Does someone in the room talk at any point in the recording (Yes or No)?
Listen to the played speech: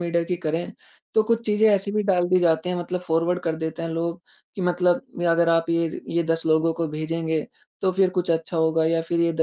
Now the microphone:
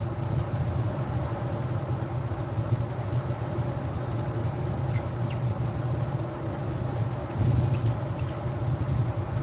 No